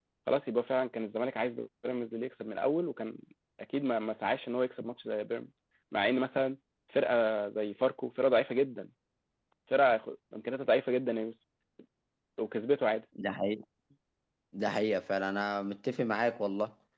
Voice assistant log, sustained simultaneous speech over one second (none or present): none